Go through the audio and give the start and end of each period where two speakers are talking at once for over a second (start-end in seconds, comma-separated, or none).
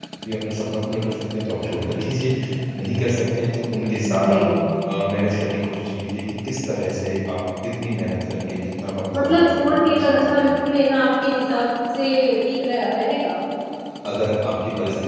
9.1-10.5